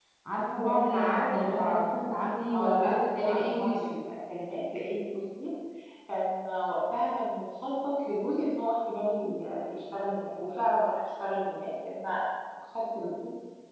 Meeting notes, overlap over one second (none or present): present